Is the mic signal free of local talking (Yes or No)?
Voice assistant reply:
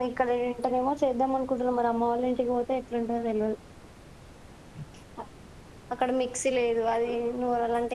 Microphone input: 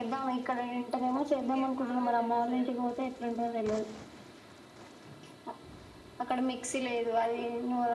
No